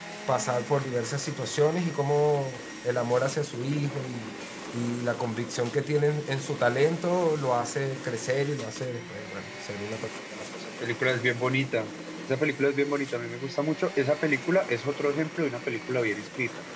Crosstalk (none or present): none